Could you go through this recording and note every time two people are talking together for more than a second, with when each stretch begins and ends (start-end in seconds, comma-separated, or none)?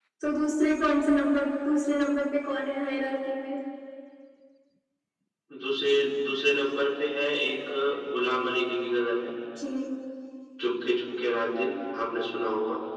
none